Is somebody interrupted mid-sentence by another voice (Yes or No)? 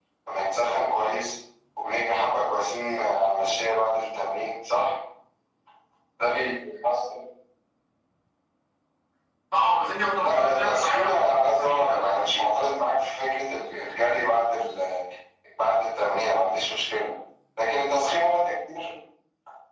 Yes